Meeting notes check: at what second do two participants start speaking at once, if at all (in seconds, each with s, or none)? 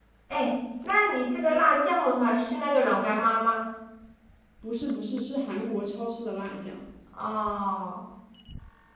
none